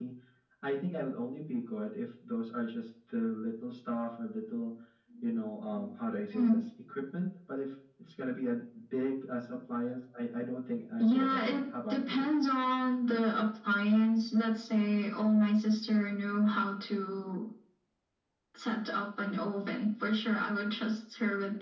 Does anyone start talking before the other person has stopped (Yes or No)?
Yes